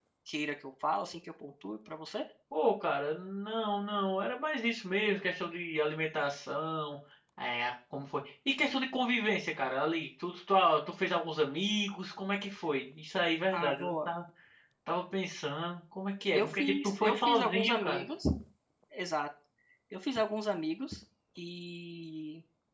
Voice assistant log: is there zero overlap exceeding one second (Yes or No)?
No